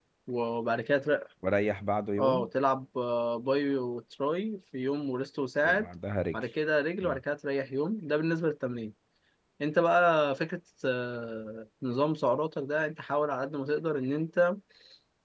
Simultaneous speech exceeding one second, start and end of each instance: none

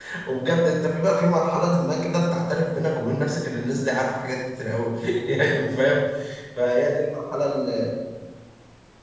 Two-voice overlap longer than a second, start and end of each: none

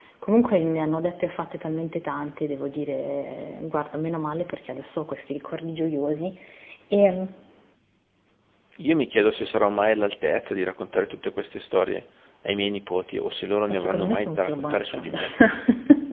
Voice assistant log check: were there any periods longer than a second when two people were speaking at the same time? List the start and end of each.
13.7-15.2

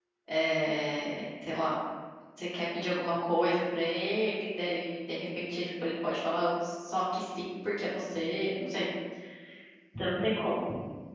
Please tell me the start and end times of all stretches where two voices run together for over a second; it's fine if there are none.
none

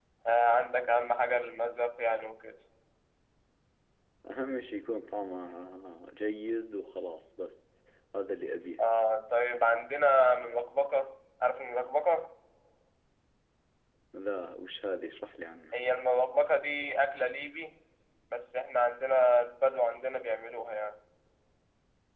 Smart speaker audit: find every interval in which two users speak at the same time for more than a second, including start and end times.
none

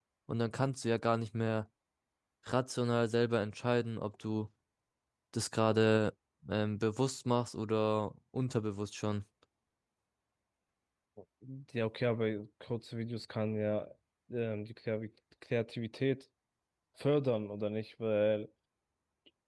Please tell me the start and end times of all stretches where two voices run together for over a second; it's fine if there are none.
none

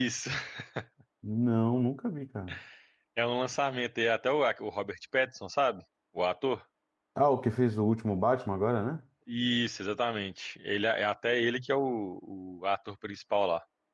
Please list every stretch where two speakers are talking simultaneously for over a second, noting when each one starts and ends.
none

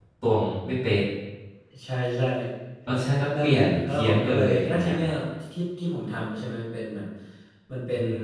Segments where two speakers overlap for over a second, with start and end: 3.4-4.9

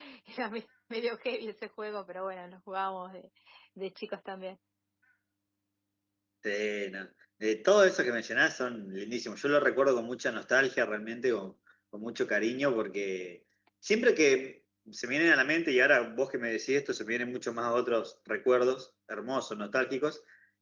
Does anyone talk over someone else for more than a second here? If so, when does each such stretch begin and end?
none

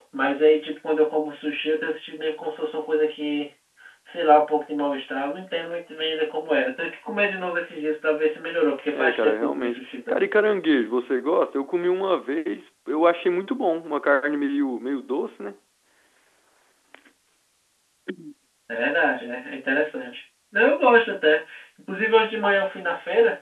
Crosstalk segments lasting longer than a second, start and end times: 8.9-10.3

